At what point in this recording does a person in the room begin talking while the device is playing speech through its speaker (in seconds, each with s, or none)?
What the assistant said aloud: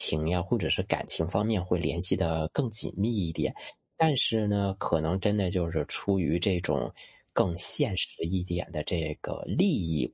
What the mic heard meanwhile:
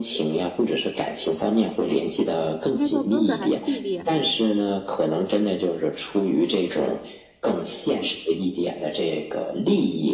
2.7 s